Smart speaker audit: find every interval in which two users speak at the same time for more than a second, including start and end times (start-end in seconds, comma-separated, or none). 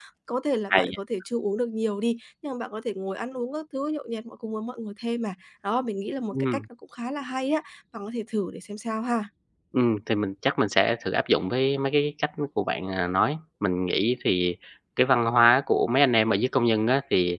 none